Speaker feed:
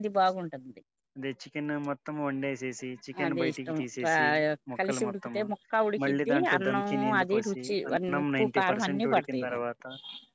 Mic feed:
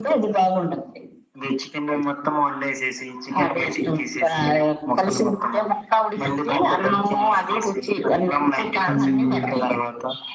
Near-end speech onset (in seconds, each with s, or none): 8.9 s